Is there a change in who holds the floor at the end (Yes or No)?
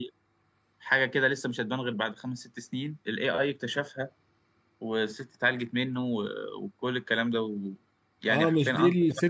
Yes